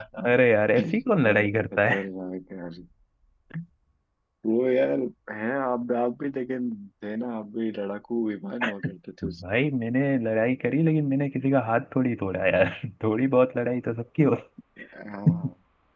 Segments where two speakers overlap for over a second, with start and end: none

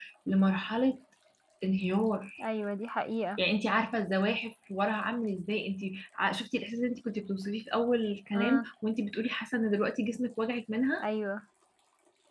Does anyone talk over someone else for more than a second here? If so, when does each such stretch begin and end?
none

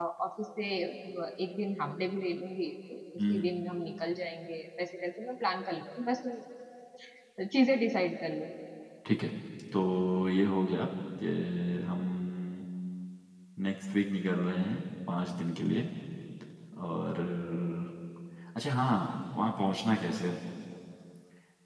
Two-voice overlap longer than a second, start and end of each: none

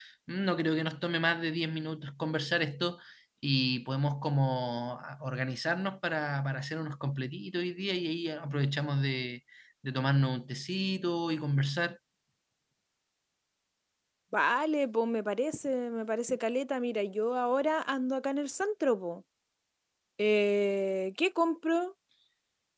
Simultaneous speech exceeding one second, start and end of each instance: none

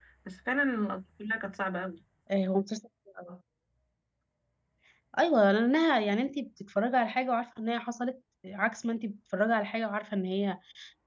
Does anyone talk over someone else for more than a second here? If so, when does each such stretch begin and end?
none

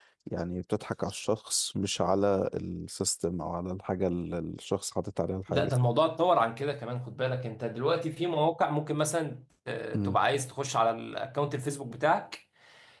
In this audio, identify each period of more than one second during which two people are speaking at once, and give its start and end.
none

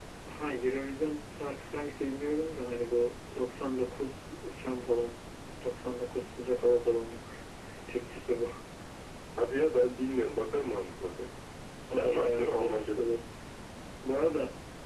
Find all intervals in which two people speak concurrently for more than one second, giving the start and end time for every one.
11.9-13.1

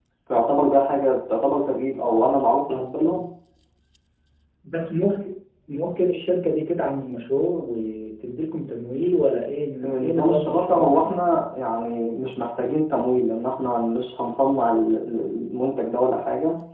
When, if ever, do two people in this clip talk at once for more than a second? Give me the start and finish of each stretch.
9.8-11.4

